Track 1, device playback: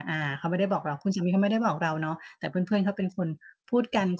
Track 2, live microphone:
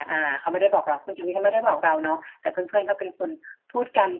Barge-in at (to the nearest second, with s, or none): none